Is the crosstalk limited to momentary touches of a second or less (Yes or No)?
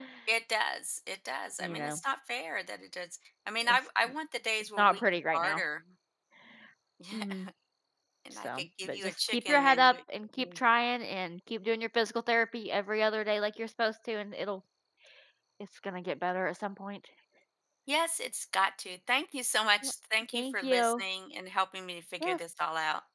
No